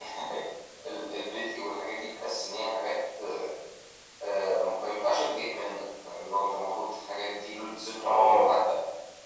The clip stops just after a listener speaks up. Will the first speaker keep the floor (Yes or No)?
Yes